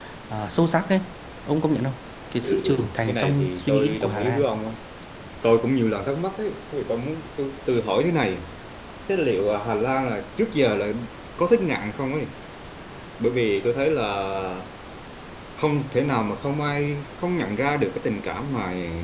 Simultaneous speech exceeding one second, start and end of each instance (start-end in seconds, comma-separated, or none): 2.4-4.4